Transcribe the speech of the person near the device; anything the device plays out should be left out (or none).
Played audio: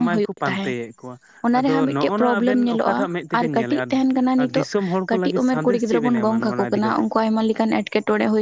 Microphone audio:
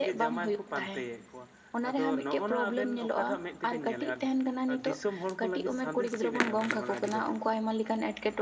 none